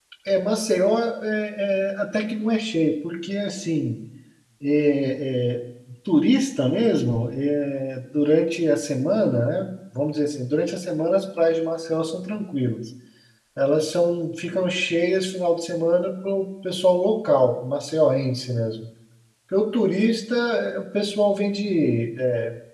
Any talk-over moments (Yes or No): No